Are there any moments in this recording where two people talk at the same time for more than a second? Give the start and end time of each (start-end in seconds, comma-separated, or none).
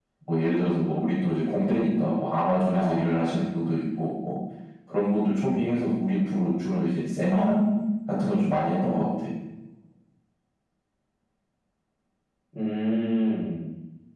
none